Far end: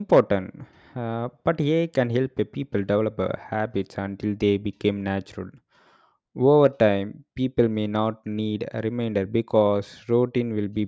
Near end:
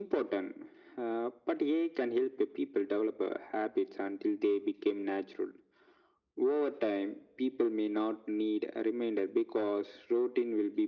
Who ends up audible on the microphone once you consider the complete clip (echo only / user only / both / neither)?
echo only